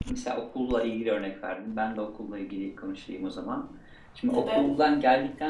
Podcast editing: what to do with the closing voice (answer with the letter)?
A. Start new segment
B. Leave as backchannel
B